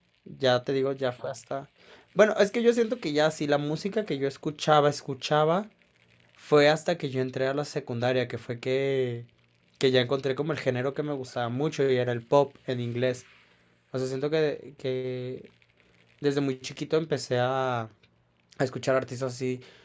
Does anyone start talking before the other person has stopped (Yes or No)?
No